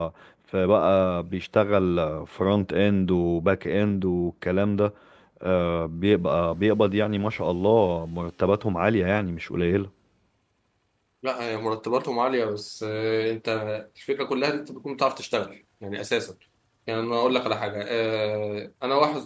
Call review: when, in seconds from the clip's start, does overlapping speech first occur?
none

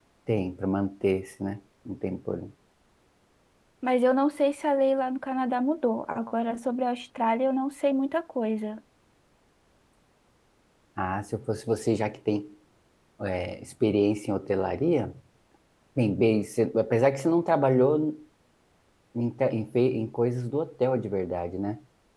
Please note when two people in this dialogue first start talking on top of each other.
none

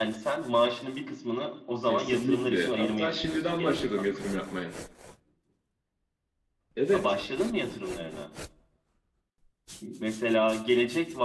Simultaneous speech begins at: 1.9 s

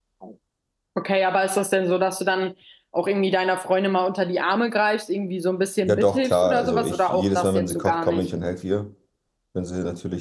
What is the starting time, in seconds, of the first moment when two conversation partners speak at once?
5.8 s

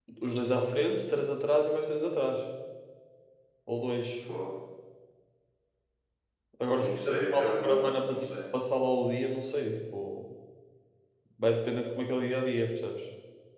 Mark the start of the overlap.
6.8 s

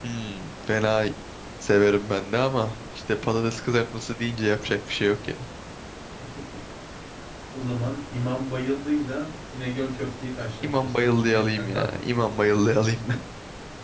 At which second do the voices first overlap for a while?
10.6 s

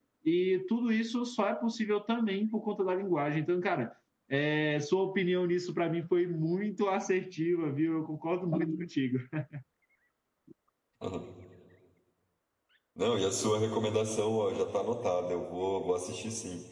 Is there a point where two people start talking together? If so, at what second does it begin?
none

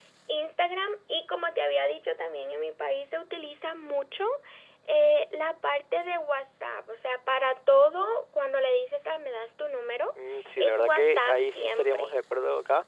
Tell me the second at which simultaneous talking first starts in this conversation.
10.6 s

